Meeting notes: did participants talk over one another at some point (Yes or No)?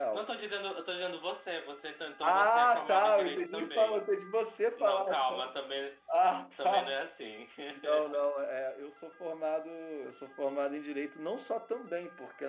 Yes